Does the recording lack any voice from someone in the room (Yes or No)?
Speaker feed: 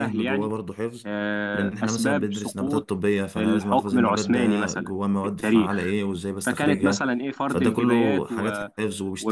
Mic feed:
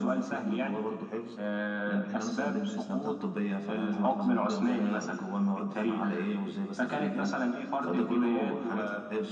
Yes